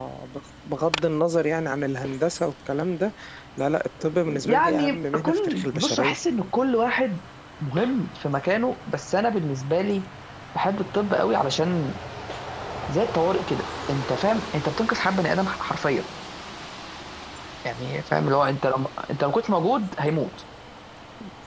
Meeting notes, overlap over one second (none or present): present